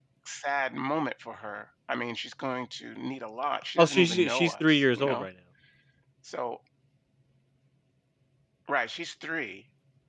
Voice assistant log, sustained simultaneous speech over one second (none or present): present